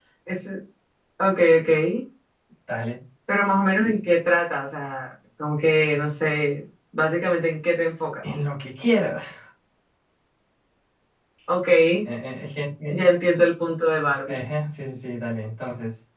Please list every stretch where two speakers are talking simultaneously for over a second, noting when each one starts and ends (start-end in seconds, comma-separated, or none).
none